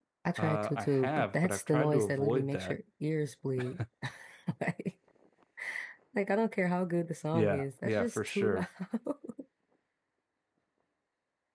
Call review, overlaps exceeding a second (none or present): present